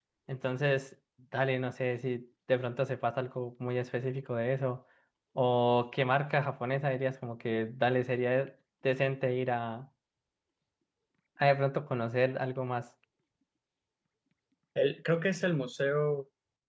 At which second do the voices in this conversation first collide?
none

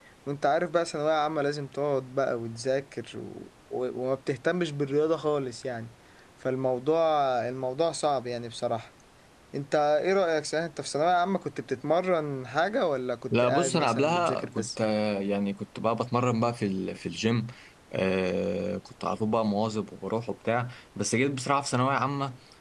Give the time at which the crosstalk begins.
13.3 s

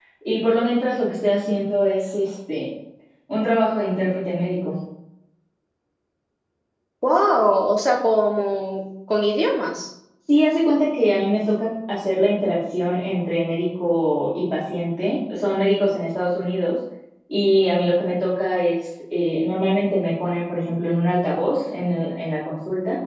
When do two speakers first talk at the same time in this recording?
none

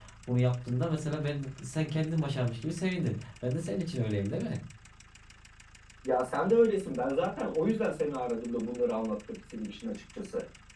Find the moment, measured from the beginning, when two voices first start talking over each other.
none

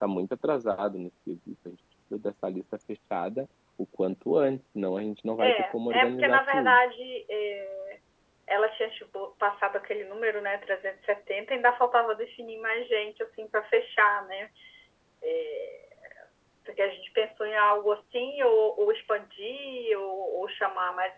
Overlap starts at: 5.4 s

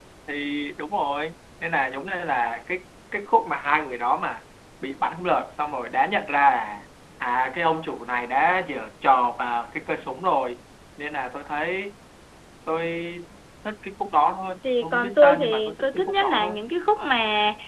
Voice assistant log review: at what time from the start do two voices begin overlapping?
14.6 s

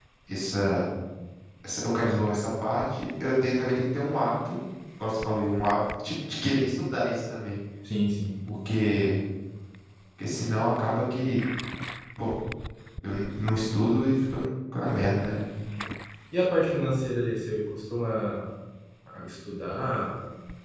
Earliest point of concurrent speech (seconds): none

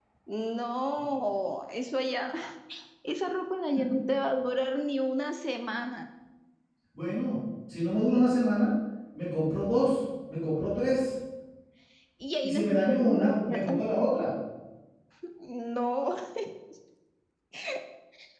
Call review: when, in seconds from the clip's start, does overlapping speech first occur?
12.4 s

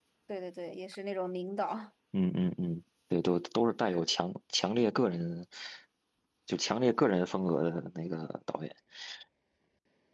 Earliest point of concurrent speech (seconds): none

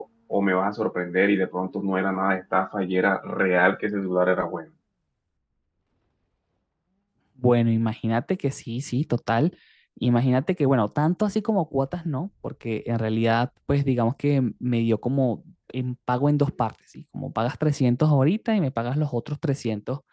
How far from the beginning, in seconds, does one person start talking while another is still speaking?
none

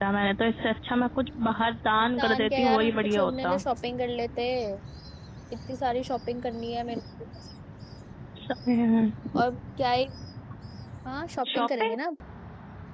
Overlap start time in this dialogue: 2.2 s

